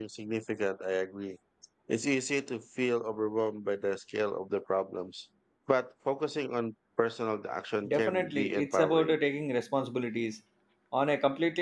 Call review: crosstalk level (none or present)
present